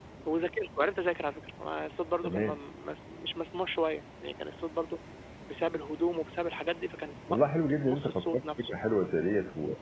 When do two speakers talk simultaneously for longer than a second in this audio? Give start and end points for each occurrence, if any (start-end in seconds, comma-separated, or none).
7.3-8.7